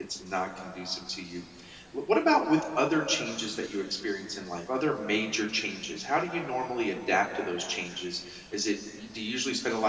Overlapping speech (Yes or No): No